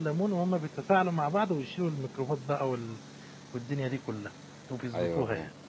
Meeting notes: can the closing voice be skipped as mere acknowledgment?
No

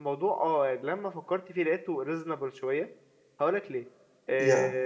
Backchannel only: Yes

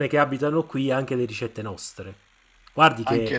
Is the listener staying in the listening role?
Yes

